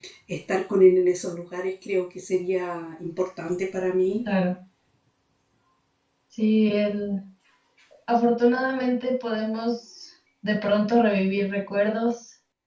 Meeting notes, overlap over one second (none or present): none